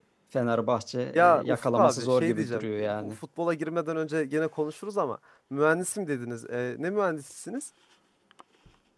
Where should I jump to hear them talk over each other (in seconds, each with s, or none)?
1.1 s